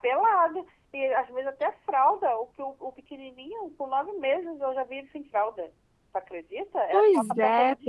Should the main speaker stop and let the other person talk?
No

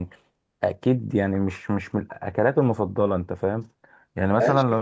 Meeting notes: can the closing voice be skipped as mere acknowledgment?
No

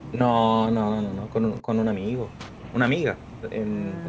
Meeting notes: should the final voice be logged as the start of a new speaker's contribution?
No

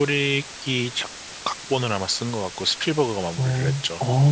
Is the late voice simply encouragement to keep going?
No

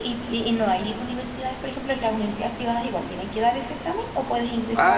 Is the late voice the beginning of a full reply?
Yes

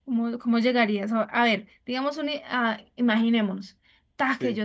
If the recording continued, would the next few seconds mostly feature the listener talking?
No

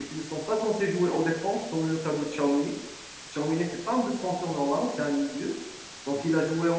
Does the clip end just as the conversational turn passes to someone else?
No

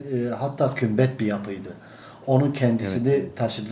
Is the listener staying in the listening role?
Yes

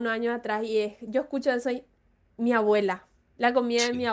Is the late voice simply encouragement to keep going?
Yes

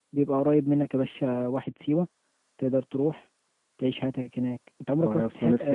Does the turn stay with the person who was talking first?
No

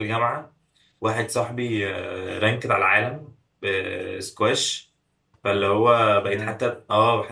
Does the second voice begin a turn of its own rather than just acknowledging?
No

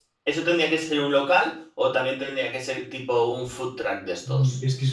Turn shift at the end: Yes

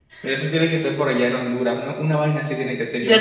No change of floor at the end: No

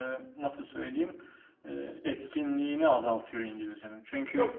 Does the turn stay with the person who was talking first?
Yes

